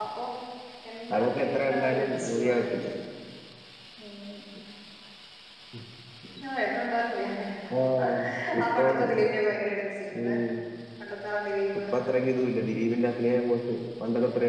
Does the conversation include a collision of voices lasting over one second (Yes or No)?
Yes